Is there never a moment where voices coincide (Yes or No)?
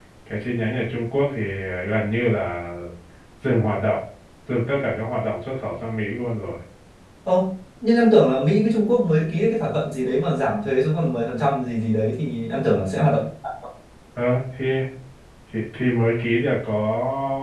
Yes